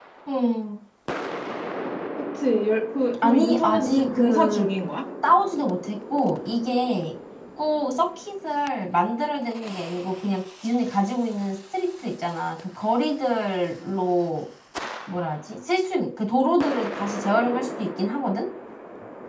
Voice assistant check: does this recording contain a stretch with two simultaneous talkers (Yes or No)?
Yes